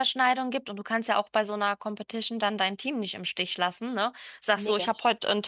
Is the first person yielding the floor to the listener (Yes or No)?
No